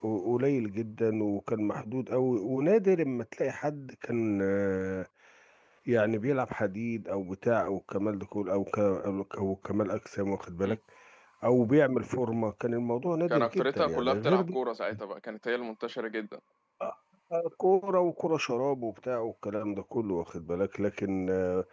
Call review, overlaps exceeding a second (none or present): present